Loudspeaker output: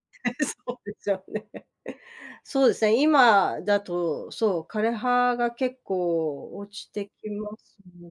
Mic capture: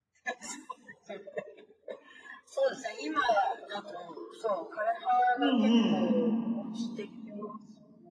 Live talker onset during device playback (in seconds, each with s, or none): 5.4 s